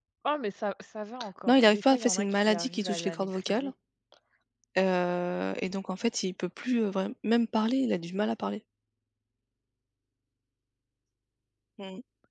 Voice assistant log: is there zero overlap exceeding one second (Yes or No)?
No